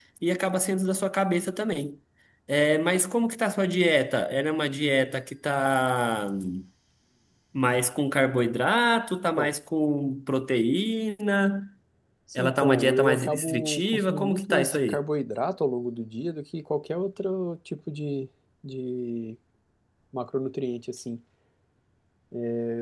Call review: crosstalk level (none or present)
present